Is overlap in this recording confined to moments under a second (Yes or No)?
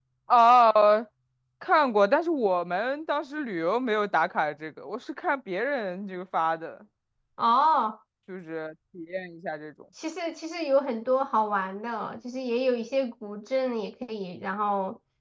Yes